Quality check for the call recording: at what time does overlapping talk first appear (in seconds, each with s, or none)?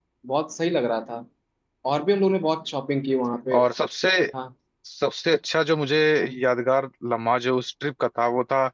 none